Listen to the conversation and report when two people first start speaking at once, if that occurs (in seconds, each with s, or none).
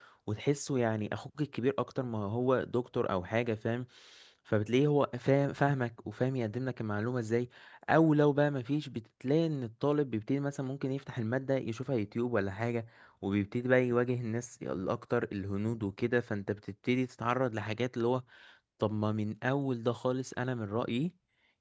none